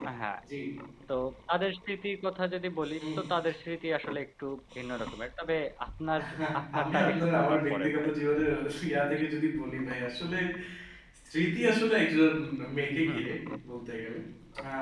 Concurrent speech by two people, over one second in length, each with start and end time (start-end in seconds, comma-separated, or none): 6.8-8.1